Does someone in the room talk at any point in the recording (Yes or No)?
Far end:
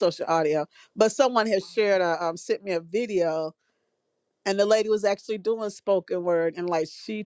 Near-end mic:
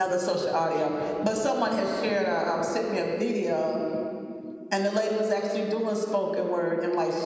No